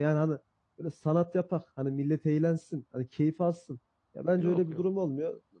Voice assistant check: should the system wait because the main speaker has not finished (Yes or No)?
Yes